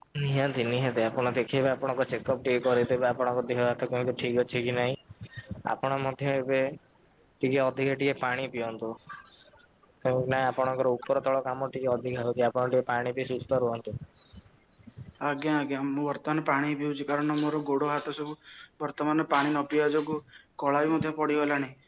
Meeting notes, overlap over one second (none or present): none